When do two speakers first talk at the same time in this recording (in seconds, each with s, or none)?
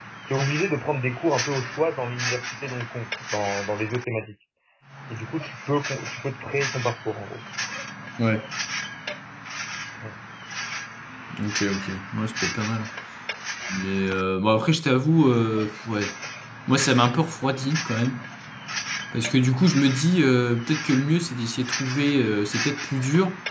none